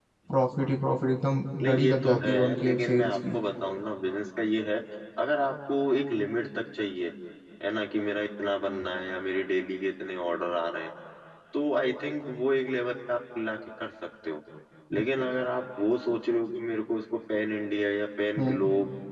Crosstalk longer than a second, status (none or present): present